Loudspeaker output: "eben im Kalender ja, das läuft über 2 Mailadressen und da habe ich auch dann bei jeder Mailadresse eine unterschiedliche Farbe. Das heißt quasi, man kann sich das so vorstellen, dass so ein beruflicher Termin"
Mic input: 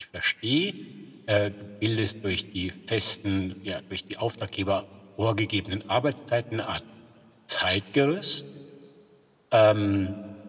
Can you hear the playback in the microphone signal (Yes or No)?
No